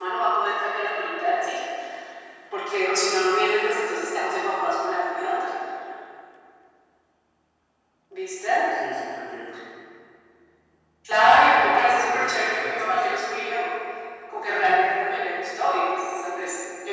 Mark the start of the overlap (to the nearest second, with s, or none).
12 s